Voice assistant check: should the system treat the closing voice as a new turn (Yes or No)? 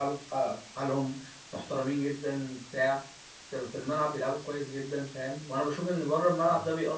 No